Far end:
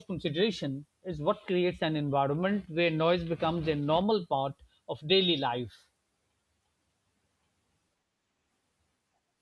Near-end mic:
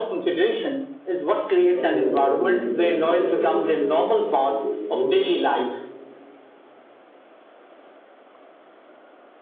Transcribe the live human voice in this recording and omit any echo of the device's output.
we automatically become quieter, more respectful, more mindful,

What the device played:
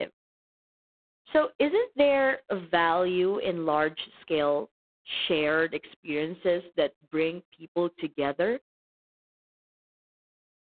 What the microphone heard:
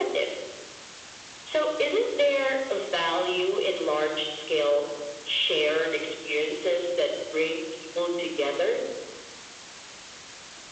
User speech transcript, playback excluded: none

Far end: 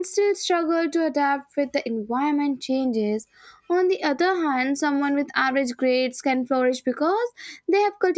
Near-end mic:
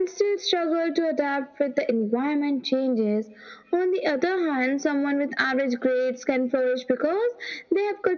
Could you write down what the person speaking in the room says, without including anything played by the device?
none

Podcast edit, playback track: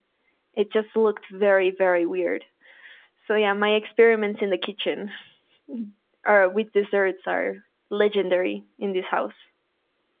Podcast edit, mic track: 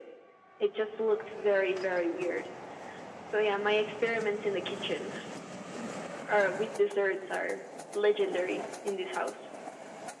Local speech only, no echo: none

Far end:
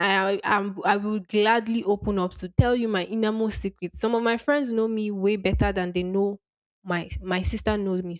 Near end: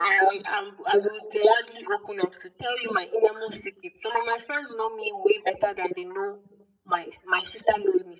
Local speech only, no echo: none

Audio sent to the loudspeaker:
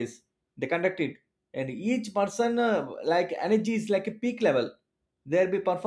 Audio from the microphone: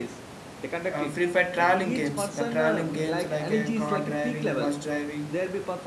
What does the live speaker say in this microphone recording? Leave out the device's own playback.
uh, free fire traveling games the traveling games like uh, car driving bus driving

